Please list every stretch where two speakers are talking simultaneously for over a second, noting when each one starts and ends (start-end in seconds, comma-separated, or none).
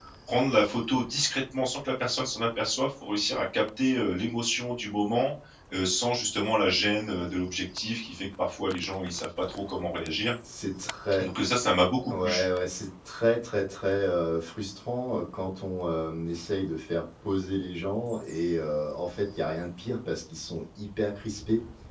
none